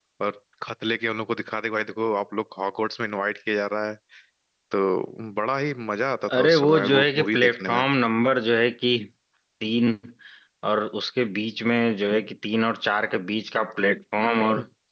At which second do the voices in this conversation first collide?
6.3 s

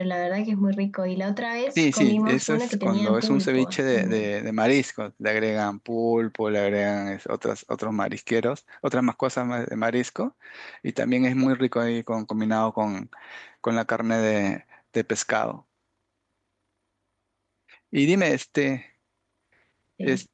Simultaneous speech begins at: 1.8 s

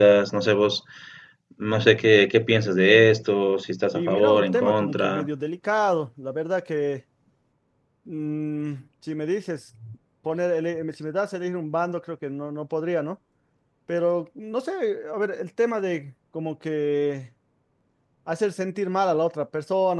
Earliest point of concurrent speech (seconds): 3.9 s

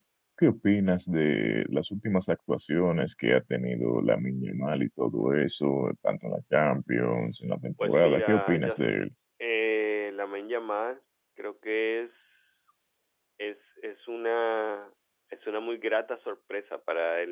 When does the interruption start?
7.8 s

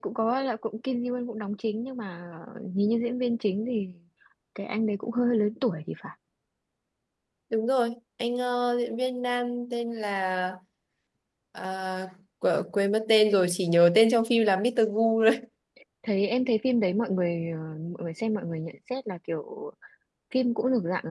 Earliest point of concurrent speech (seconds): none

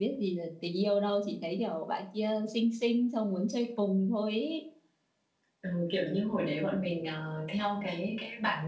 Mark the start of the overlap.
none

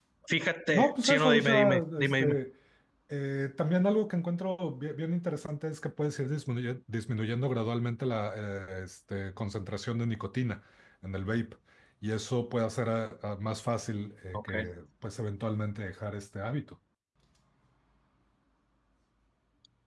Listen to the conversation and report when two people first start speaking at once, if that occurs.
0.7 s

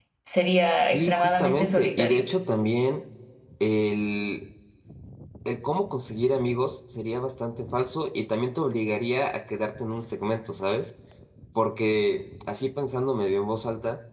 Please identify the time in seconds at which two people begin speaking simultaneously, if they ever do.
0.9 s

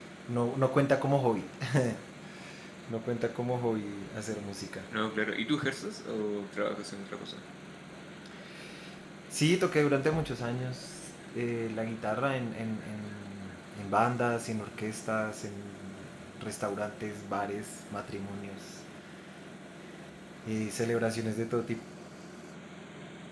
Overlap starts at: none

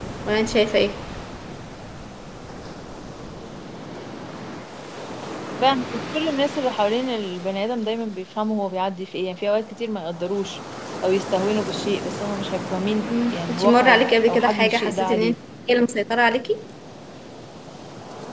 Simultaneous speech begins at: 13.1 s

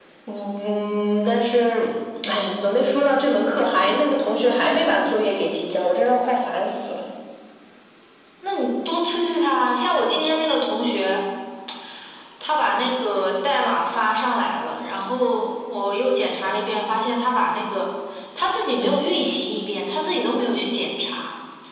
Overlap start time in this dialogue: none

